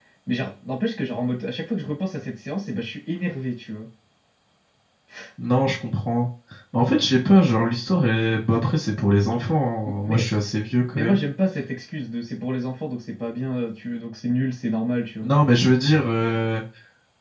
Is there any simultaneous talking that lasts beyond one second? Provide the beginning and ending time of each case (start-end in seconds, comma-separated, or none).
none